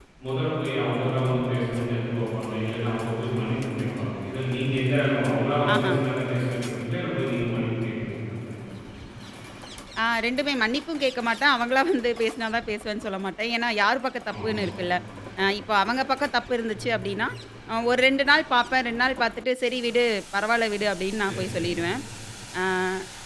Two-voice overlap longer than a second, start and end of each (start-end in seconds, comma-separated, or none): none